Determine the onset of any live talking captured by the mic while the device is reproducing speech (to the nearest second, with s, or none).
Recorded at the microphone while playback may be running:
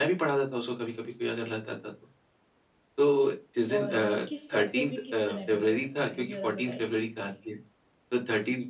4 s